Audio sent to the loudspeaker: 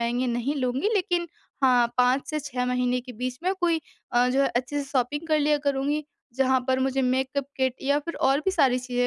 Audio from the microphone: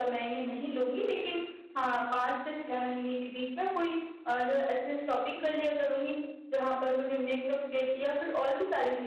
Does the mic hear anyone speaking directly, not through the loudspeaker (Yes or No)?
No